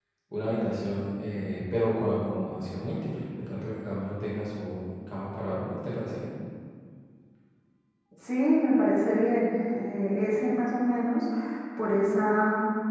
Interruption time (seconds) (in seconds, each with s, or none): none